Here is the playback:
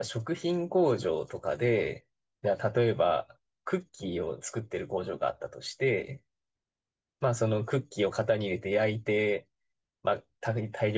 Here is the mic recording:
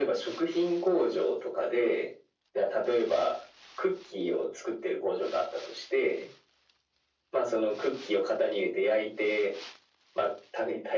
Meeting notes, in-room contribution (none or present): none